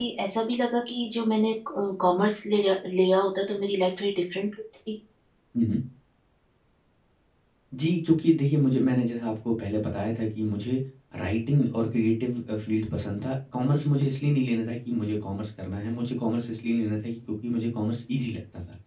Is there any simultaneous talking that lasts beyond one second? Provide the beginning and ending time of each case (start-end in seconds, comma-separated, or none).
none